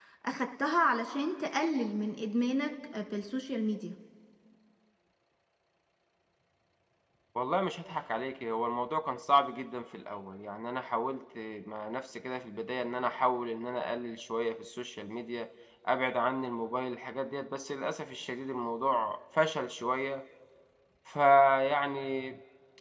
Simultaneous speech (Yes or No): No